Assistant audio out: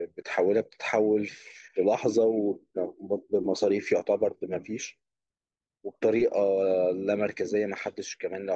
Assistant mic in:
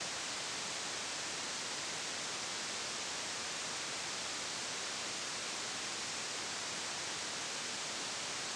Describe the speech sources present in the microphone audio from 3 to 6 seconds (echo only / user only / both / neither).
neither